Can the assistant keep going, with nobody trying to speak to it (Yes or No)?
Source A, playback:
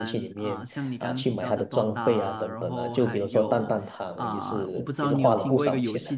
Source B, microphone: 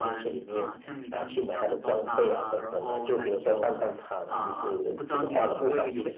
Yes